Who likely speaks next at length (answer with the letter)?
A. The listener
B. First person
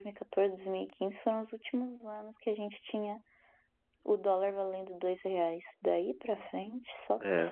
A